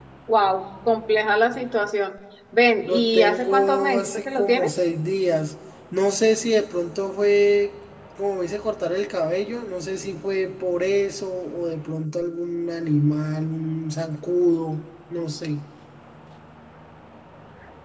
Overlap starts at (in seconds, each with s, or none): 2.9 s